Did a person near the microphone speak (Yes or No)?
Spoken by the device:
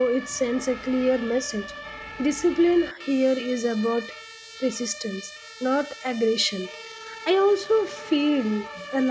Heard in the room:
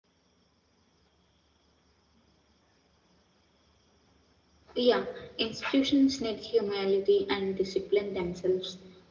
Yes